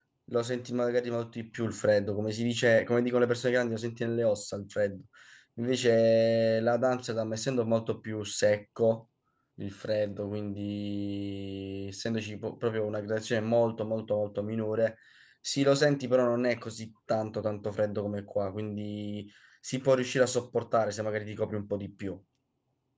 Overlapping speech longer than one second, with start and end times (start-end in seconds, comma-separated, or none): none